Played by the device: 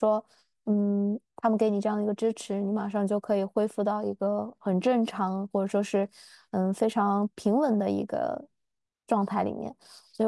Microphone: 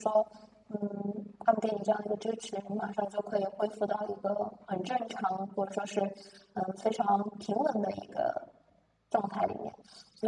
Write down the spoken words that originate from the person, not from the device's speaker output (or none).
none